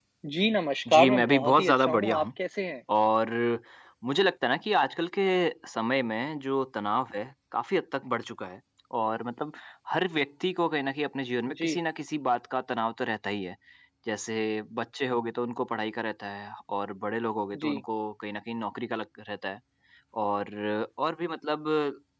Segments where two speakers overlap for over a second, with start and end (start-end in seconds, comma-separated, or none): 0.9-2.2